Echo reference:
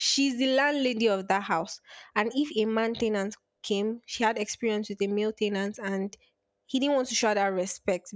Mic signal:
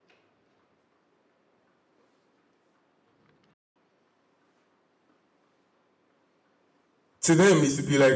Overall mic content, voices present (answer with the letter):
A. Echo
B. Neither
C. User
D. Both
C